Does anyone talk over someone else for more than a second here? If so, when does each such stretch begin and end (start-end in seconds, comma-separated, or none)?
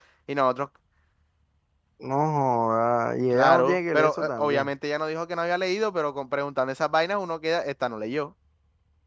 3.3-4.7